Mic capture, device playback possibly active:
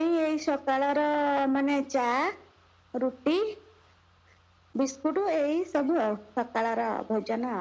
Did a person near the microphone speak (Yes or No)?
No